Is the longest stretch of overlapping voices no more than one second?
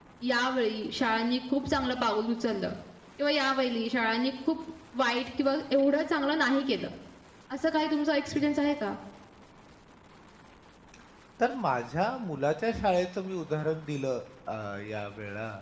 Yes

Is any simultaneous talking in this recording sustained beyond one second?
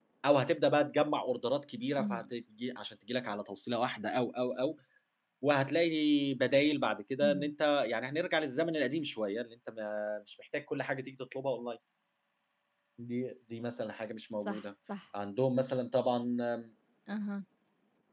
No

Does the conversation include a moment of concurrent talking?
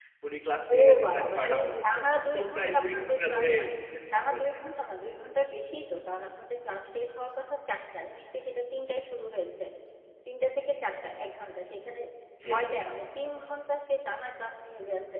Yes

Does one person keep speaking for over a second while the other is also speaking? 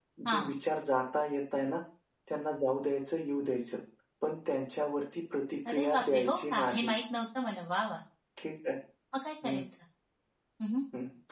Yes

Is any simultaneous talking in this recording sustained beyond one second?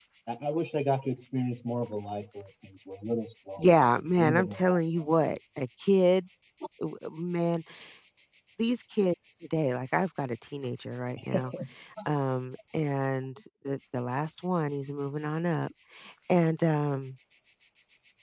Yes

